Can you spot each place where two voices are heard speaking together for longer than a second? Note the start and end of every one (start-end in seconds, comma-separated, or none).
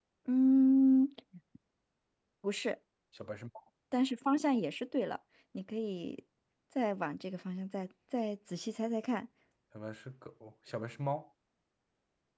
none